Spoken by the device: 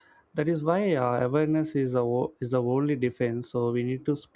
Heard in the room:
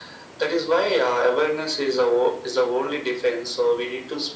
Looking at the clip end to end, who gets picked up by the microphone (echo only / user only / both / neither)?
echo only